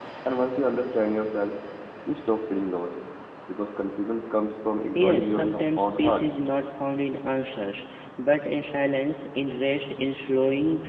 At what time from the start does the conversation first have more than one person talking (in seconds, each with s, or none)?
5.0 s